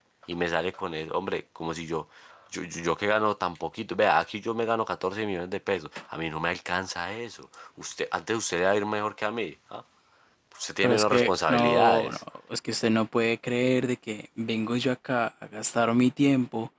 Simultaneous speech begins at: 10.8 s

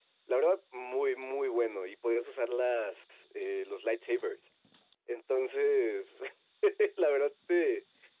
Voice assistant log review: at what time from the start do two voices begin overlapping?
none

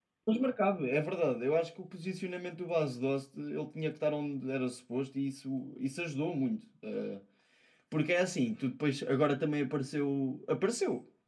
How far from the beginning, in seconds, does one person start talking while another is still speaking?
none

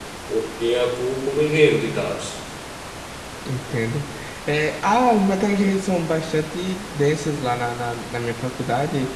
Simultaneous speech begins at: none

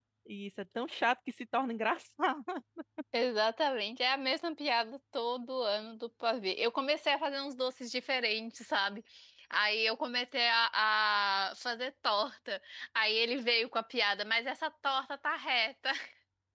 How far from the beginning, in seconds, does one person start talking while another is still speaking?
none

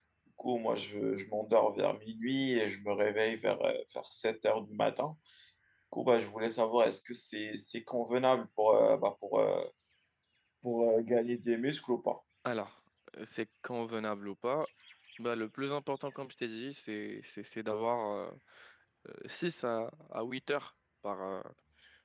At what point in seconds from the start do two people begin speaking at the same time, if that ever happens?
none

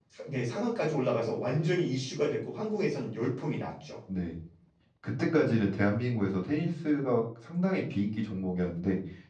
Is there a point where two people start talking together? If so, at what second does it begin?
none

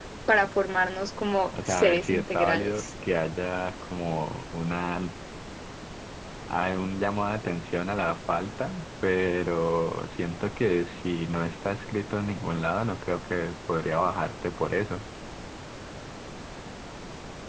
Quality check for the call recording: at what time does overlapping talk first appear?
1.5 s

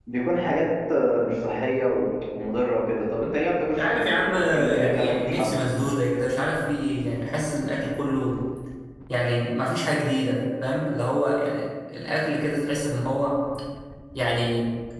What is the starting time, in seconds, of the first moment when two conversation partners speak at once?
3.8 s

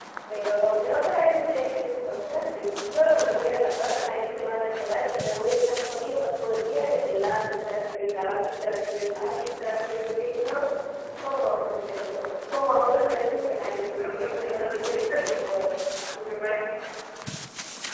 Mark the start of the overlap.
14.0 s

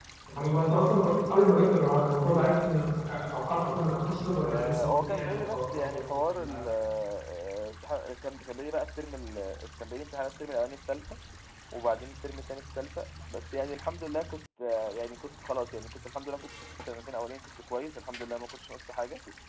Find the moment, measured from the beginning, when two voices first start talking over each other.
4.5 s

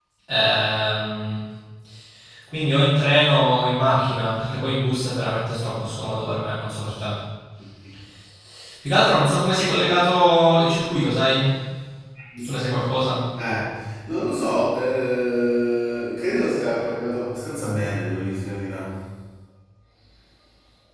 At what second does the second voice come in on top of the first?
none

